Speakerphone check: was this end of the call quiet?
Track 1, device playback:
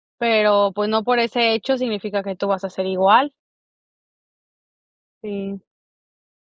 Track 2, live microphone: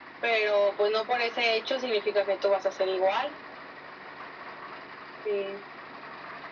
Yes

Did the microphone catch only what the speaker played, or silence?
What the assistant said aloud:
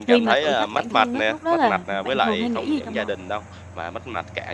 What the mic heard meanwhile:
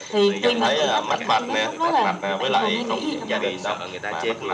No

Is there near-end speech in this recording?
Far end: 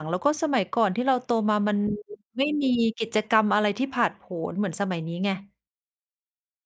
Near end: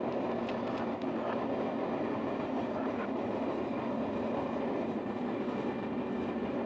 No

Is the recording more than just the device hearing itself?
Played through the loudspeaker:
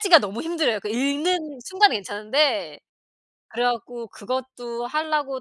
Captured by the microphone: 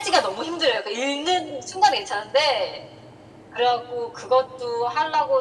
No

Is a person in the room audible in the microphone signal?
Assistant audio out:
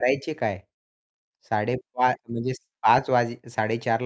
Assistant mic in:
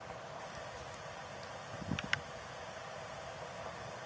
No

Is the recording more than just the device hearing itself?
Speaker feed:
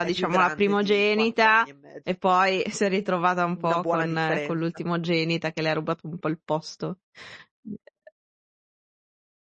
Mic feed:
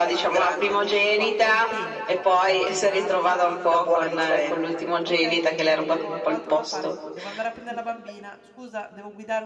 Yes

